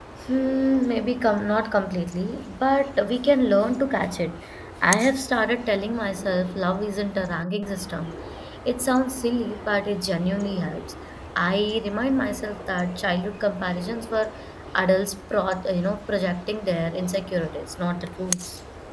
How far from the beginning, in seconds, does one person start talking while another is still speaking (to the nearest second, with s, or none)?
none